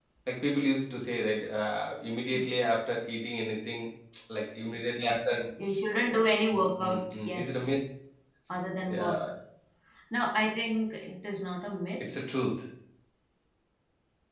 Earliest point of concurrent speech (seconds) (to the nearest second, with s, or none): 7 s